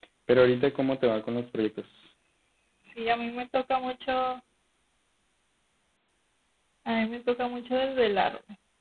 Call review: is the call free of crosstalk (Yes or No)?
Yes